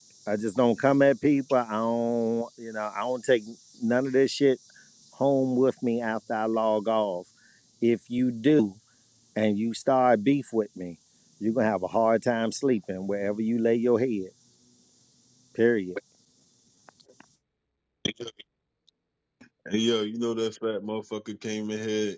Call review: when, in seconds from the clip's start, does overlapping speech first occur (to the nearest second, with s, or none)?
none